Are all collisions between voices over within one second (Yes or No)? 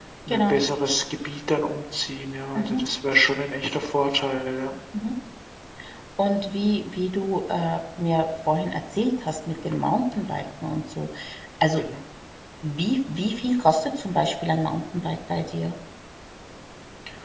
Yes